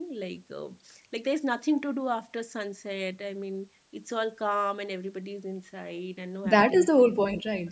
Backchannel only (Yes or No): No